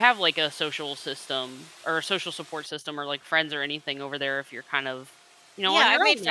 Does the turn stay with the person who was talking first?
No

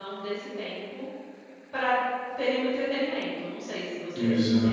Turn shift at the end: Yes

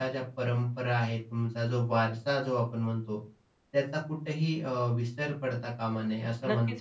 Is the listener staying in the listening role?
No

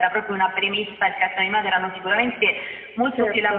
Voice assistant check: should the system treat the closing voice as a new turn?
No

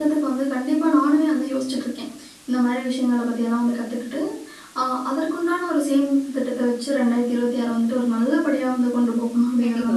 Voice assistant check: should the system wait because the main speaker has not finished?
No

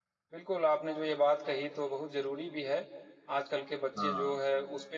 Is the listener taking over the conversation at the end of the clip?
No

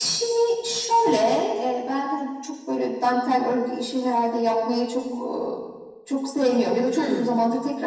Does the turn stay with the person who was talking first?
Yes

